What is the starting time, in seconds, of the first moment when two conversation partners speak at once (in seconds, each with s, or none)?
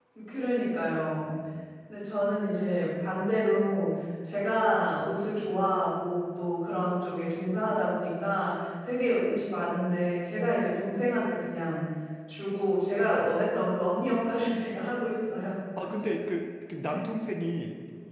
none